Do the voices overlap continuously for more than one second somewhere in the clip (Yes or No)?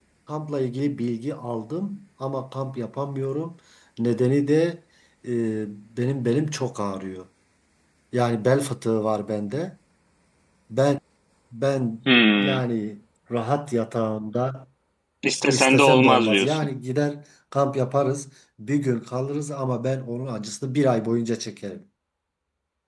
Yes